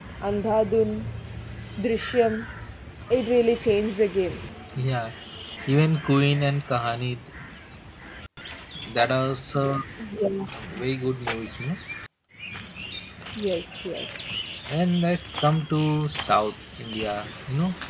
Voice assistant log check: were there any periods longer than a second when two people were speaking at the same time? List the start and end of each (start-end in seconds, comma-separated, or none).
none